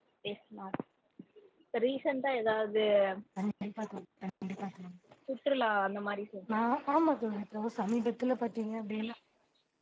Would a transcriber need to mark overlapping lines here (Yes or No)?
No